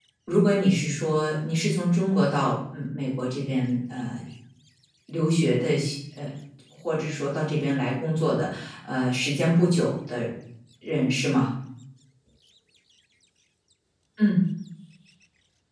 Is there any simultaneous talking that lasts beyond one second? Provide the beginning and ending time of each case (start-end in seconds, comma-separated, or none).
none